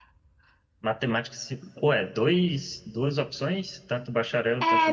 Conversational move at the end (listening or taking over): taking over